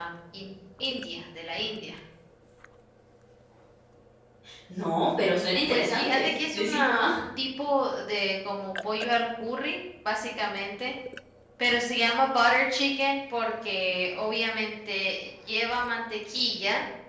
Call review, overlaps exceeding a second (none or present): present